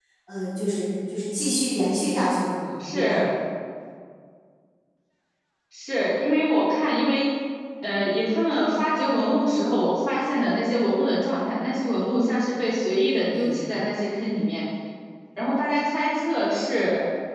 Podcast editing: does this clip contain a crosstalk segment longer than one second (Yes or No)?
No